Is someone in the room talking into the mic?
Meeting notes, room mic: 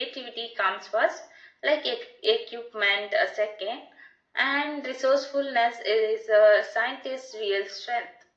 No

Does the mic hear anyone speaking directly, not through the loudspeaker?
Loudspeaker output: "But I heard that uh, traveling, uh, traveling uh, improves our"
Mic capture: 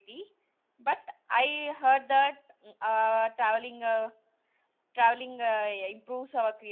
No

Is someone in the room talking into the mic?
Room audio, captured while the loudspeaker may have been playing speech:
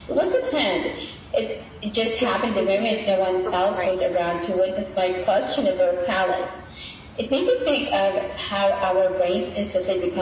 Yes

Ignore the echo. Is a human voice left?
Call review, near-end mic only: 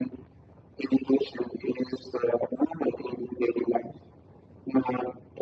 No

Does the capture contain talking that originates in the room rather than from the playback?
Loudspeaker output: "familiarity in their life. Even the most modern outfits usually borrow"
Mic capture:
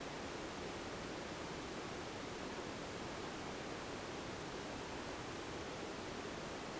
No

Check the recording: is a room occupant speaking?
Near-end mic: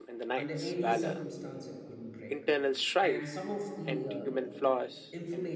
Yes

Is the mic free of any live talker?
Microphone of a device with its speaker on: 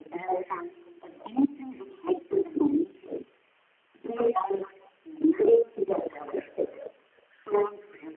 Yes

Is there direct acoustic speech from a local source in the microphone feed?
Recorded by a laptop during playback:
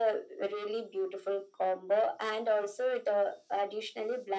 No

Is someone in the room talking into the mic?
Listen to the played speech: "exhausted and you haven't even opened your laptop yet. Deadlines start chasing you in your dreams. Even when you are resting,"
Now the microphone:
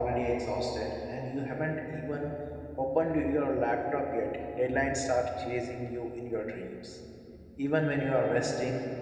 No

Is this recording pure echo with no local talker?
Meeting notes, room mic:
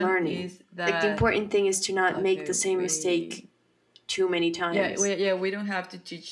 No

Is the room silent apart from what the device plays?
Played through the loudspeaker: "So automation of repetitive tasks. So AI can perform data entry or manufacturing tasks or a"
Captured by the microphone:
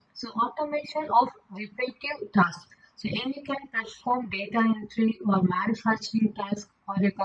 Yes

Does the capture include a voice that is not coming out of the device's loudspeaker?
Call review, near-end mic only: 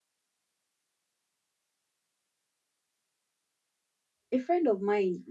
Yes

